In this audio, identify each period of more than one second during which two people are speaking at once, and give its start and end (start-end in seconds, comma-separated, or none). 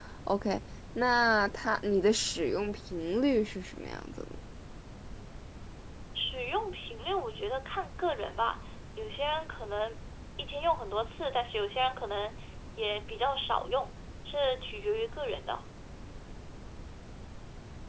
none